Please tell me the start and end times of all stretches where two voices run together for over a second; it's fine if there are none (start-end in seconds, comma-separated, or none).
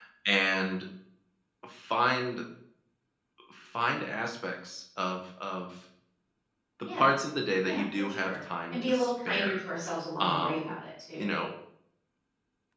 7.6-9.6